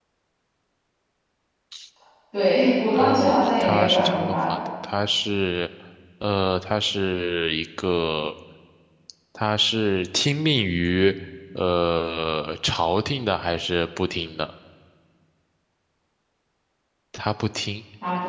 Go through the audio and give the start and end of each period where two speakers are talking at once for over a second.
2.9-4.6

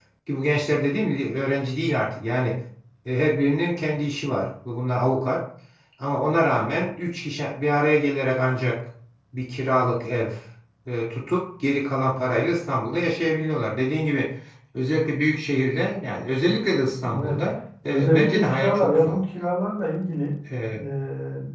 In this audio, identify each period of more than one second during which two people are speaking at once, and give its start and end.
17.9-19.2

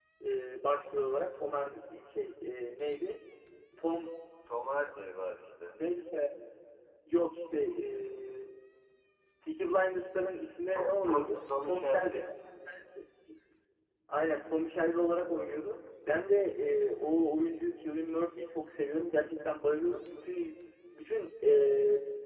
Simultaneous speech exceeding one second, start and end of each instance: 10.7-12.2

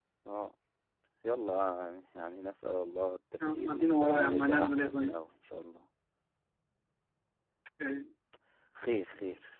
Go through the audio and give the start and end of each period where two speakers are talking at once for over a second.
3.4-5.1

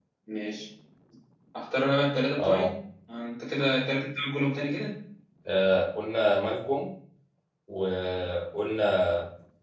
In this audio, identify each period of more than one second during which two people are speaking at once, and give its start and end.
none

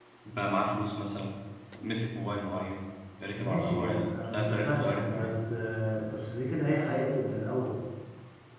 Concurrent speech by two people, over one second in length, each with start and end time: 3.4-5.3

